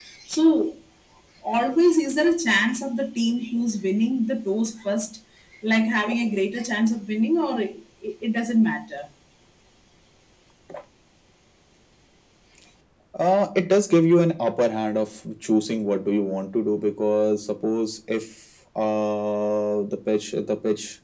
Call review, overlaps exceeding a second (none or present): none